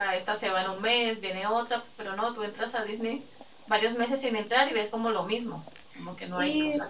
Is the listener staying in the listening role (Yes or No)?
No